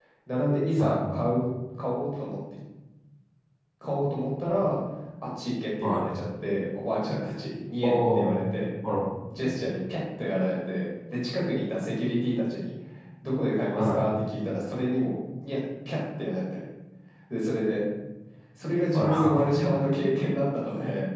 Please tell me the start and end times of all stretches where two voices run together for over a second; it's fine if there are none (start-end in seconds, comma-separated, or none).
none